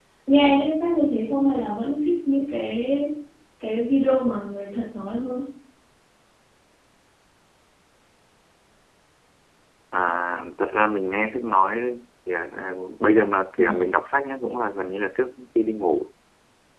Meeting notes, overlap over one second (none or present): none